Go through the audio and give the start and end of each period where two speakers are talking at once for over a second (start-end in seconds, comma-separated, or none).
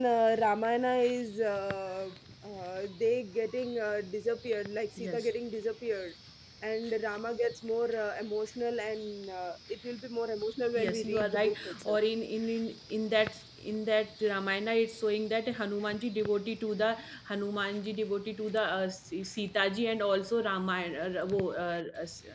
10.8-12.0